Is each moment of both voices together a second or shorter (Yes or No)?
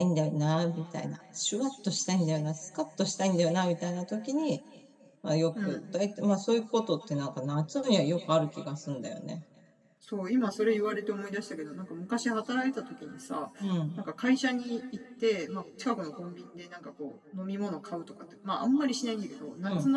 Yes